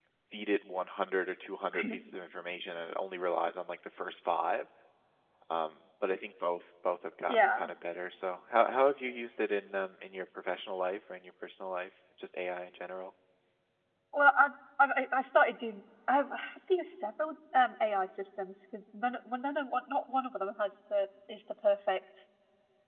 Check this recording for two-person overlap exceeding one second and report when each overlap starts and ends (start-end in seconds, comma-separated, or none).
none